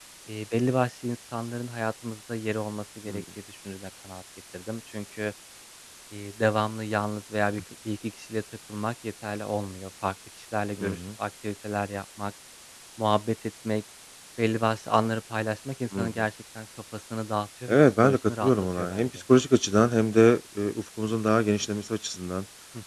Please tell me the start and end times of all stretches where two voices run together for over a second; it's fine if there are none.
17.7-19.1

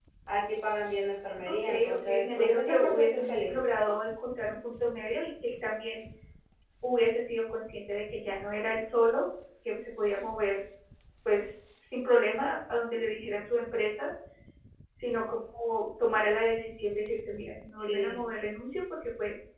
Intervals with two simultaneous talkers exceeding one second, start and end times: 1.5-3.5

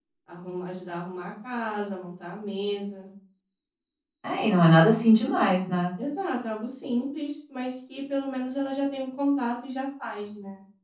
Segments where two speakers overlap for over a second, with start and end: none

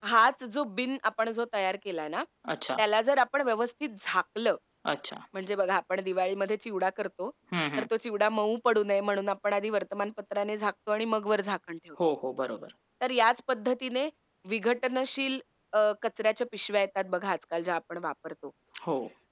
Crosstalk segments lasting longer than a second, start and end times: none

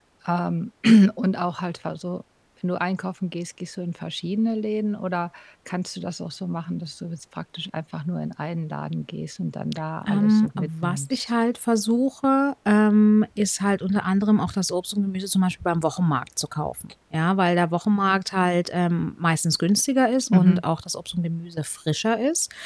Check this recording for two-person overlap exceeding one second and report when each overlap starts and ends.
10.1-11.3

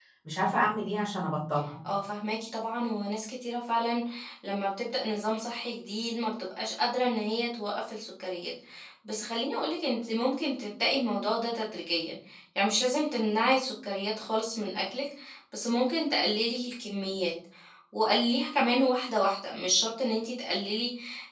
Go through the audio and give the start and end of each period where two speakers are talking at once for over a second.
none

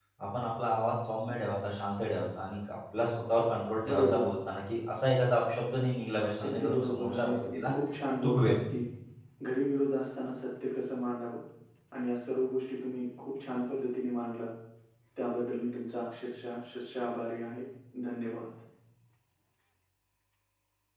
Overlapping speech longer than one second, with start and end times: 6.4-7.7

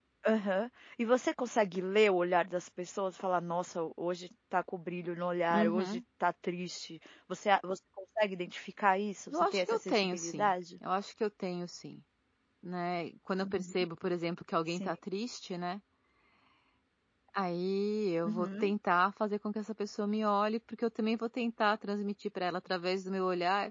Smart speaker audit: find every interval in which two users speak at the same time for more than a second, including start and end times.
9.3-10.5

